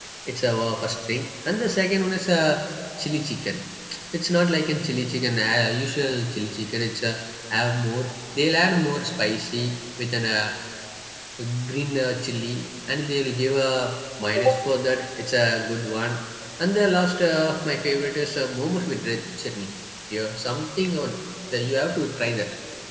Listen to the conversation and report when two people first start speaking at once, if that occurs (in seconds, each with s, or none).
none